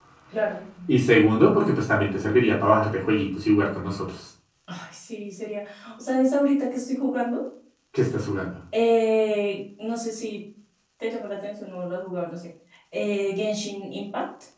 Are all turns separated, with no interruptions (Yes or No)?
Yes